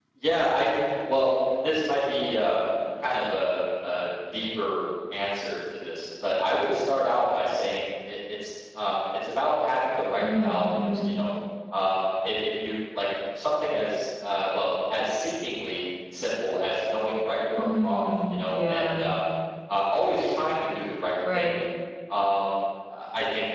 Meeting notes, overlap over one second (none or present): present